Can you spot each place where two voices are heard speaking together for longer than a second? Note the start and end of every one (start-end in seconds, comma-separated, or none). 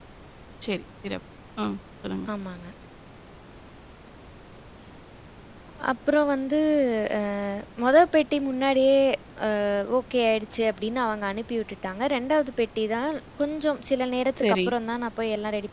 none